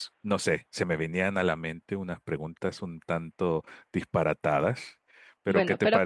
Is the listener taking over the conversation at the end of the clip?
Yes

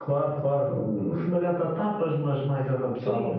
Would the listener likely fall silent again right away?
No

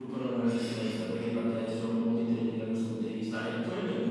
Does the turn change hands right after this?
No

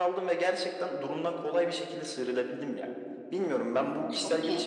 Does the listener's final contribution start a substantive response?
No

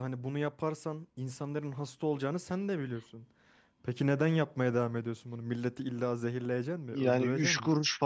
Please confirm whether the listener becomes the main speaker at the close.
Yes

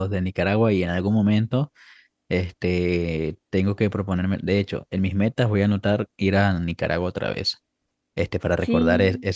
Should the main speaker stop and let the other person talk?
No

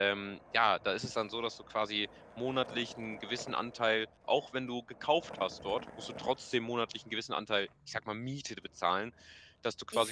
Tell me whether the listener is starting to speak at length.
No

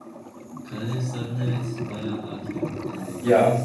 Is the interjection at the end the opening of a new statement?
No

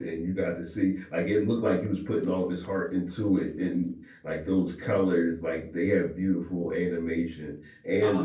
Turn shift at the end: No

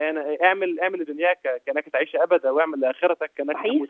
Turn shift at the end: No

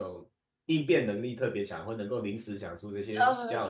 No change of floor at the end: No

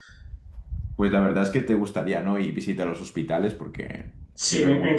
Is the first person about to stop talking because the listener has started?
Yes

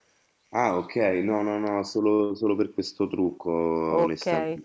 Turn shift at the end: Yes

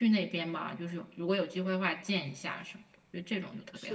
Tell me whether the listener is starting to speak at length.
Yes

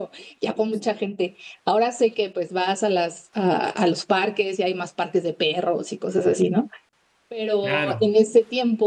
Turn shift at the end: No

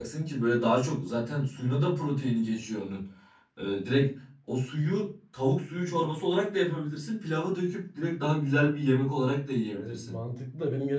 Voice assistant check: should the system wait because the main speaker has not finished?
No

